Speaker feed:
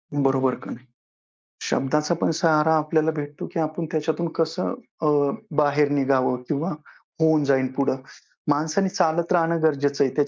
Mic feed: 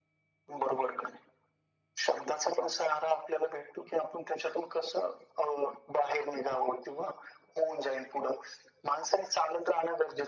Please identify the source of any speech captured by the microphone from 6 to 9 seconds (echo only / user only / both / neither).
echo only